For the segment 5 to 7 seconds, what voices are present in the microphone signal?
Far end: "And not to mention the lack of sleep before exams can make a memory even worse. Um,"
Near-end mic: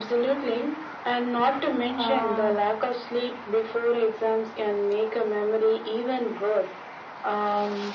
echo only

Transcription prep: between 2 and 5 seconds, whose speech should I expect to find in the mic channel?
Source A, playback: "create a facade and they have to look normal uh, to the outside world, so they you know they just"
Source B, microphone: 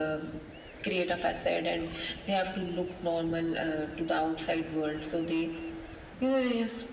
echo only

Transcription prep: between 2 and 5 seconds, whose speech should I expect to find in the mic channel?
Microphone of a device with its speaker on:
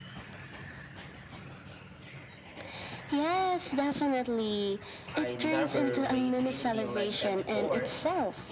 echo only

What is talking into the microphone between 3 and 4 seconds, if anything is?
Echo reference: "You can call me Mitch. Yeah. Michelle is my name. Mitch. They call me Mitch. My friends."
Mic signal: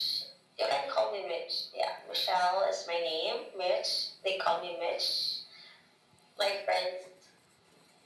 echo only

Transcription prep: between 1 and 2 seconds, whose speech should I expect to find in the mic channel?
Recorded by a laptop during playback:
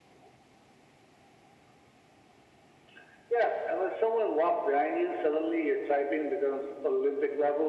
neither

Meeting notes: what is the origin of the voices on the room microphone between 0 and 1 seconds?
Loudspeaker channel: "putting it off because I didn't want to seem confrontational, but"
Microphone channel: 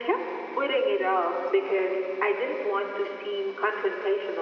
echo only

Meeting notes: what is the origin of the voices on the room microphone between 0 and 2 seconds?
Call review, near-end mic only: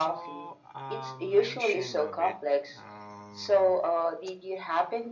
both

